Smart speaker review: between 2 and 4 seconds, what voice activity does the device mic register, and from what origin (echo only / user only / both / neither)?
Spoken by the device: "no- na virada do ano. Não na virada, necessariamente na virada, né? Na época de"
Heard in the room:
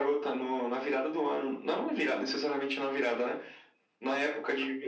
echo only